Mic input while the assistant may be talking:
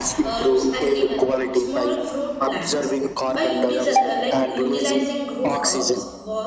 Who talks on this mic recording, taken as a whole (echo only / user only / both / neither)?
both